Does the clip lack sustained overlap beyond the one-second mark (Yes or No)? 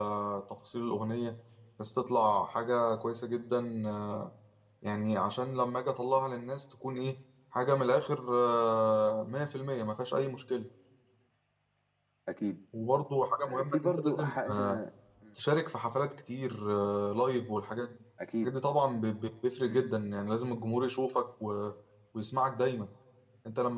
No